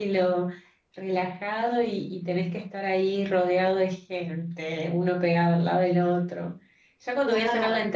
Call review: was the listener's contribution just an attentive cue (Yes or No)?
Yes